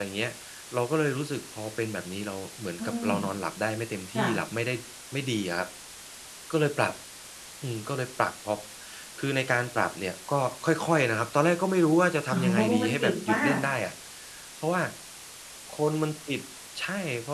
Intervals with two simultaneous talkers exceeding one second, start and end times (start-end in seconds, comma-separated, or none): 12.3-13.6